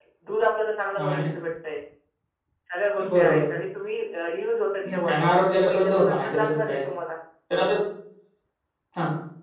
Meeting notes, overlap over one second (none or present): present